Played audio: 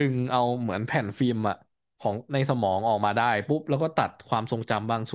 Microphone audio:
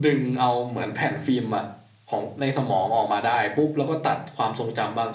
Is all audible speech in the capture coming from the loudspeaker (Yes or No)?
Yes